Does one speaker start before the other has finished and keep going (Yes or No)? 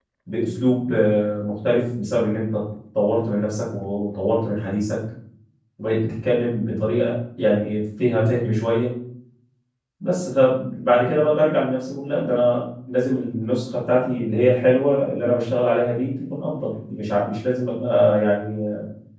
No